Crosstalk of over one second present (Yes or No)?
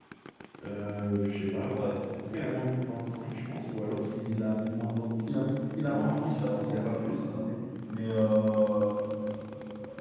Yes